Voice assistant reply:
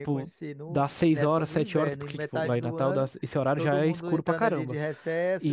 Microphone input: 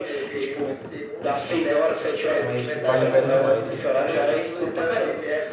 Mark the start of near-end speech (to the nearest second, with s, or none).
2 s